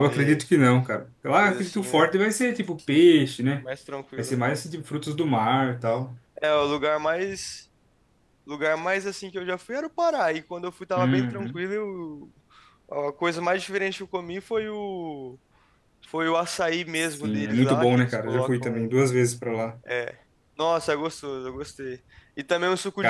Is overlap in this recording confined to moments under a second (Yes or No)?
No